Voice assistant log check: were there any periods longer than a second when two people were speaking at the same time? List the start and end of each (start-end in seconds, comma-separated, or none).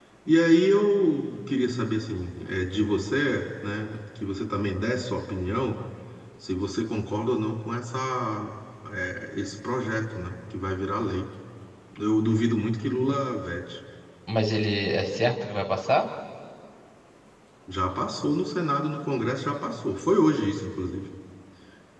none